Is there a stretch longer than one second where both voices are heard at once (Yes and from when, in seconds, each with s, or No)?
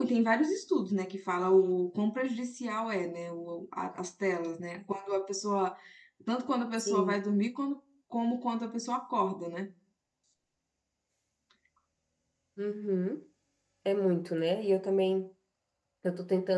No